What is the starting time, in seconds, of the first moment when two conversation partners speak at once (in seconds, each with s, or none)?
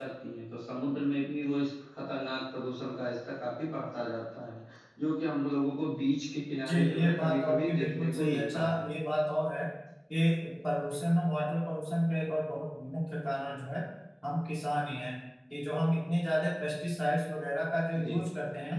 6.7 s